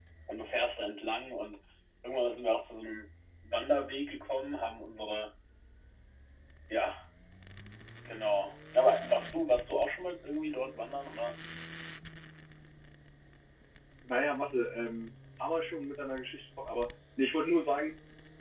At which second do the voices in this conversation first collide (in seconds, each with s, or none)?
none